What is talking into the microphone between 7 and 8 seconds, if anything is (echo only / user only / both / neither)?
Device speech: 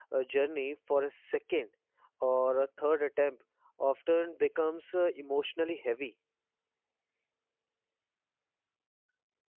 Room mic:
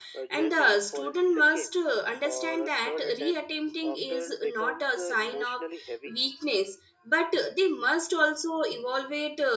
user only